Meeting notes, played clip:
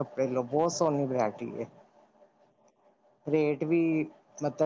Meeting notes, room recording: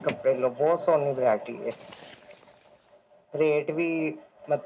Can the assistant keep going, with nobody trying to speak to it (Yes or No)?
Yes